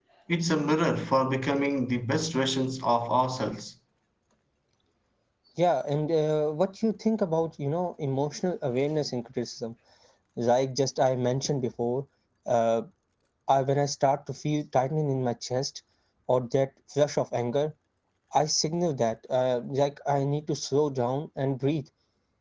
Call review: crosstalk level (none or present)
none